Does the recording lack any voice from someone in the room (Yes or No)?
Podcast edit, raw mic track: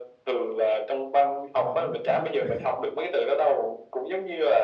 No